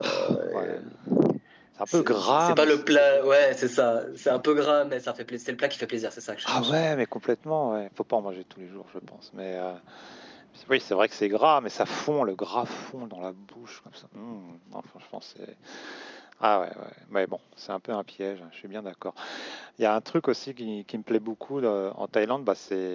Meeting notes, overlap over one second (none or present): present